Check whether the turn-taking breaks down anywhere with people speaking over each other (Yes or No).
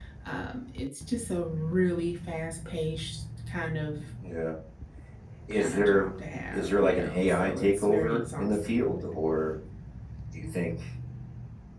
Yes